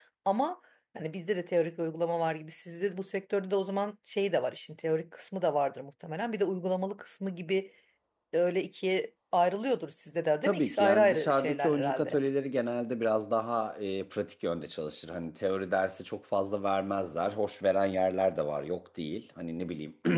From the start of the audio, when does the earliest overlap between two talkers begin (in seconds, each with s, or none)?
10.4 s